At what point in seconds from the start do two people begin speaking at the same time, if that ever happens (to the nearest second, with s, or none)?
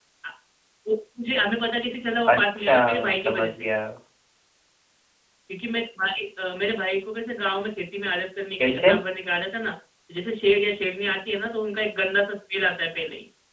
2 s